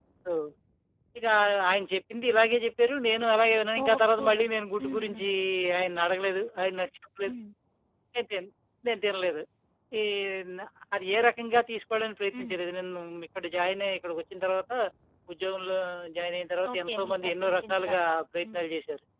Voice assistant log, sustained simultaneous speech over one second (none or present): present